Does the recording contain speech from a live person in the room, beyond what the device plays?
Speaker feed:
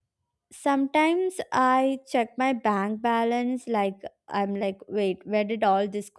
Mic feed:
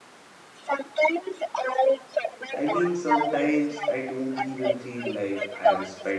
Yes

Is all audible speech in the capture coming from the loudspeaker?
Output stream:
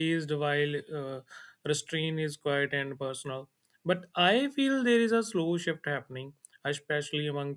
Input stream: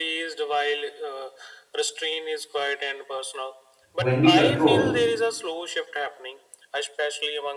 No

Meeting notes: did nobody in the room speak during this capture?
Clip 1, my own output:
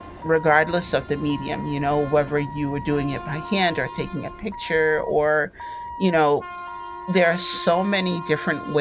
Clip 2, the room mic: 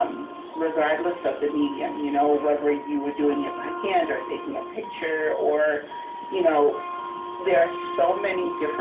Yes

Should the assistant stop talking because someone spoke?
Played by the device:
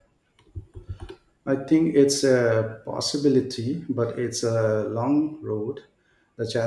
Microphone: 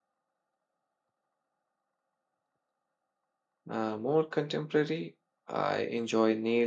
Yes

